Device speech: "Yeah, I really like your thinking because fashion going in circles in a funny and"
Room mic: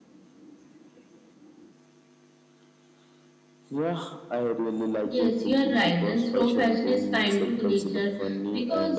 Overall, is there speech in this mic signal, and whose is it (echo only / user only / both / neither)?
both